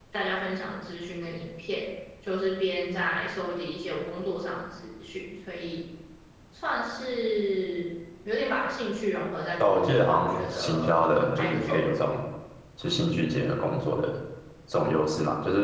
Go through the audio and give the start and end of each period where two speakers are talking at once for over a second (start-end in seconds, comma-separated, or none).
9.6-11.0